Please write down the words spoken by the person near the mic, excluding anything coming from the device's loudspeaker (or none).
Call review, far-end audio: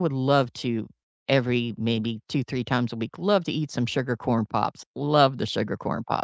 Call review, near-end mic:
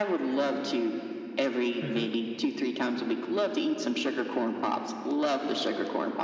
Mhm.